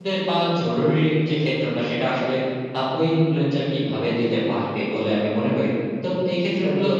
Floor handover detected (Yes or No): No